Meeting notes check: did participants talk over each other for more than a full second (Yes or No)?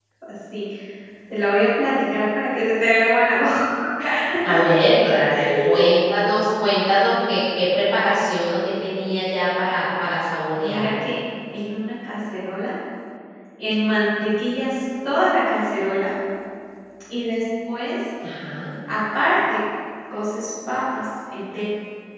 No